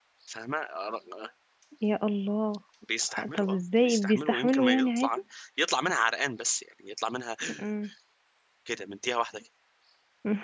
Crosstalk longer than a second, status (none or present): present